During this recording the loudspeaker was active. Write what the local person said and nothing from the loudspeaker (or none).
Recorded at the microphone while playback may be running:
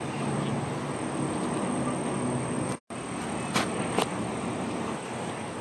none